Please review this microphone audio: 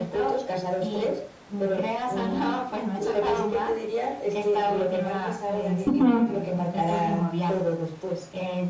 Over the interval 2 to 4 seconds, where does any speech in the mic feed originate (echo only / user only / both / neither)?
echo only